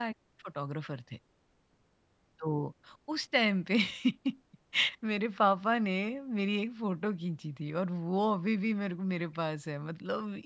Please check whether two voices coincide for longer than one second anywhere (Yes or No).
No